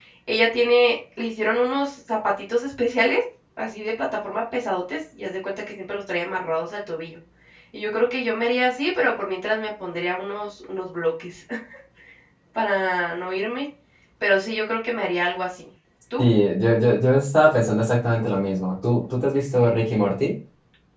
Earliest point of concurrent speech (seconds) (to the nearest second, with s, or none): none